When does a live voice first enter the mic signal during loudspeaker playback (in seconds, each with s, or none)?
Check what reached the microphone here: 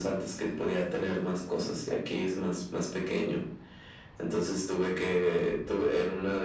none